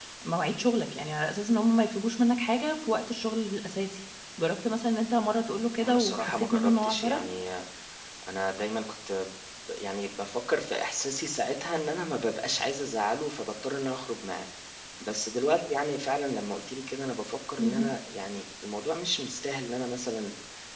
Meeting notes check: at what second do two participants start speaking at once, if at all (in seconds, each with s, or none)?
5.8 s